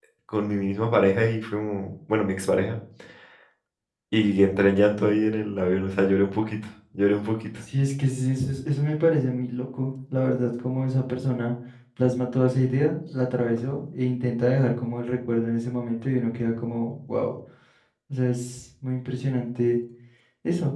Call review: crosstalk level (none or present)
none